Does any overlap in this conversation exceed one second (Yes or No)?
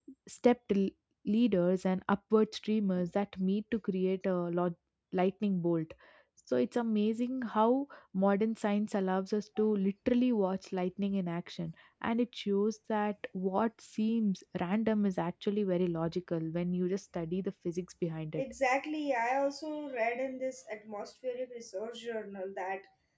No